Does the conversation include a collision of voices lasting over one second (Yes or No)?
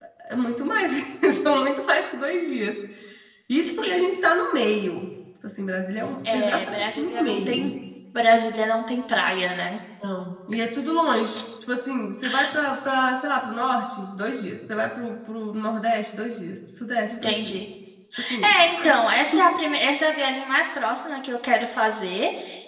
Yes